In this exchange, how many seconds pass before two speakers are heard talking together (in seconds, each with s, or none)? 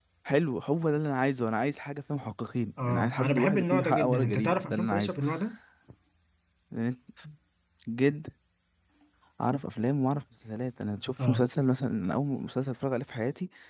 2.8 s